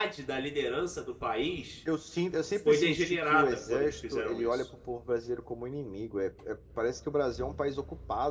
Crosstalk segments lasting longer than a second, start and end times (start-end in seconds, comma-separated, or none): 2.6-4.6